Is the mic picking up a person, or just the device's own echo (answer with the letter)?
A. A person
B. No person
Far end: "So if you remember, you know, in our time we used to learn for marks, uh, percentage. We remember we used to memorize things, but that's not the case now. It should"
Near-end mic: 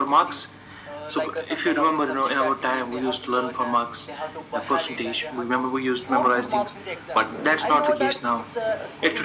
A